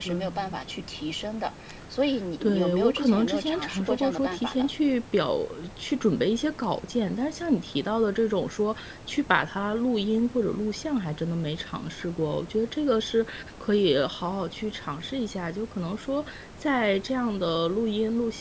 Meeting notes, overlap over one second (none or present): present